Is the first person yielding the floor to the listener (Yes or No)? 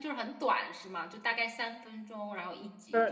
Yes